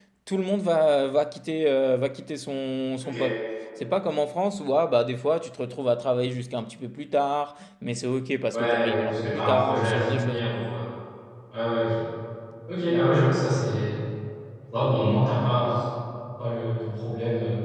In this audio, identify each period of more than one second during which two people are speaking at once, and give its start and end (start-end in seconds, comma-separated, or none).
8.5-10.4